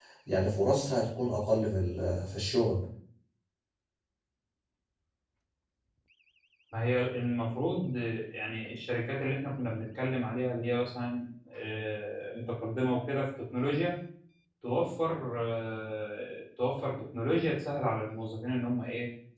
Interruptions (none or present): none